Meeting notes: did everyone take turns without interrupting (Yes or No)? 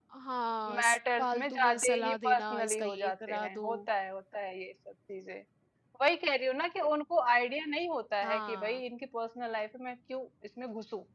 No